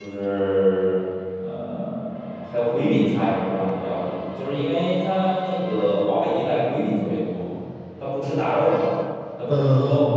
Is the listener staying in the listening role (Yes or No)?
Yes